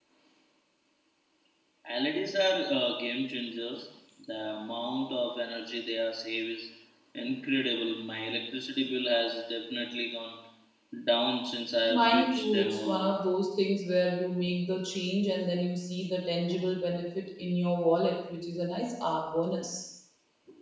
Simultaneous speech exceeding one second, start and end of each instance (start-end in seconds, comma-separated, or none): 11.9-13.1